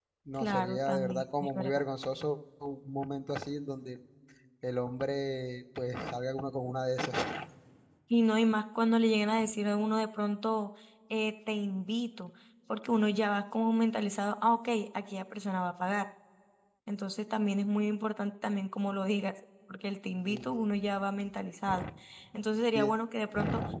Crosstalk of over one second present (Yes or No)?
Yes